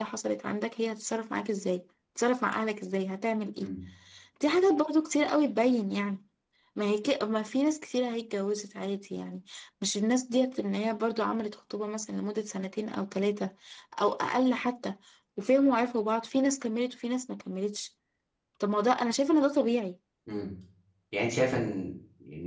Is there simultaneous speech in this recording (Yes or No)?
No